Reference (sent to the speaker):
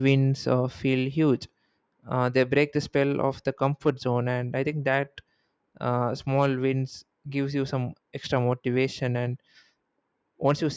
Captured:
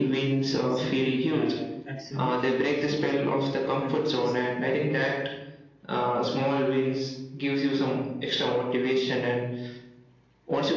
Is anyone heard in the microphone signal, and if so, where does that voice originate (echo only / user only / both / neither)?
both